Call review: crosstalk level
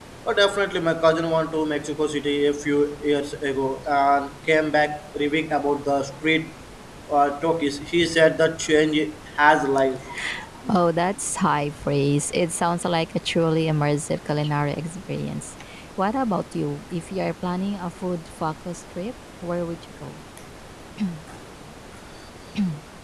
none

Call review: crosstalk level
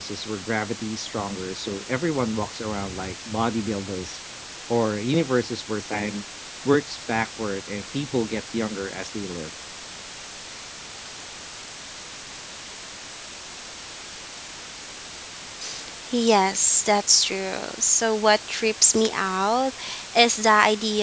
none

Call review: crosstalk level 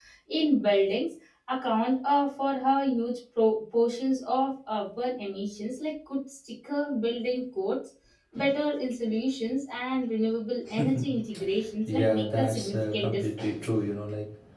present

